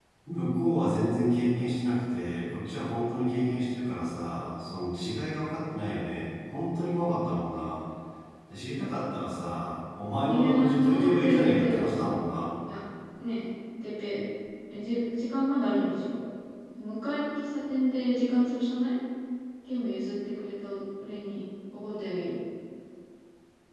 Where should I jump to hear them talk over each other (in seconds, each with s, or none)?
10.2 s